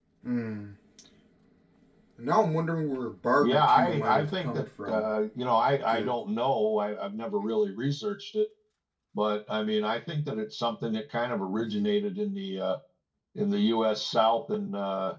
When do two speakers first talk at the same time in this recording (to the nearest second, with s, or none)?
3 s